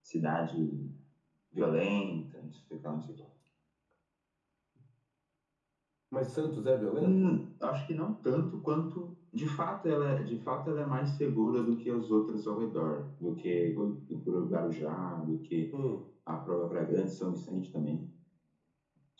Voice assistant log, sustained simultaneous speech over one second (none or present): none